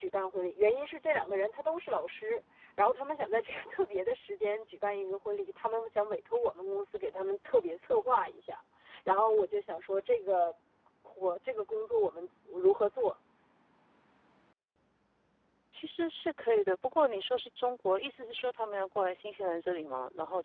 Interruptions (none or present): none